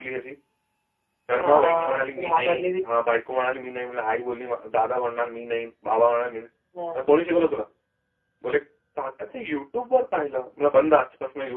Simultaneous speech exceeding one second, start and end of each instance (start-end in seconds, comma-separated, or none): 1.4-2.7